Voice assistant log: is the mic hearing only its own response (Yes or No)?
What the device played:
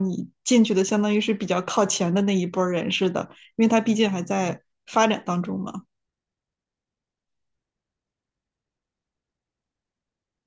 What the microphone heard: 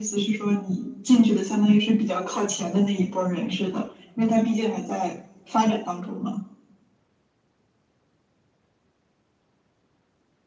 Yes